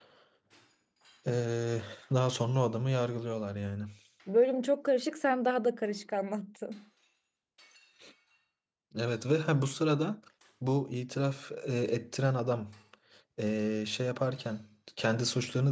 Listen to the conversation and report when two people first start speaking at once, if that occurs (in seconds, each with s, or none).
none